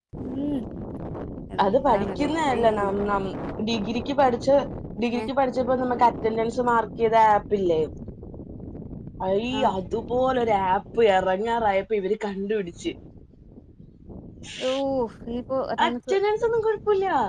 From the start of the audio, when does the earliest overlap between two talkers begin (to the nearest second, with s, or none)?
2 s